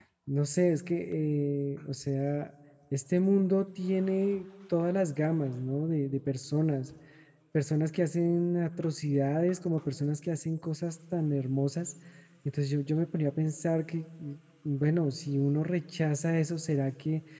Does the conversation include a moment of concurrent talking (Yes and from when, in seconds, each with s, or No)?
No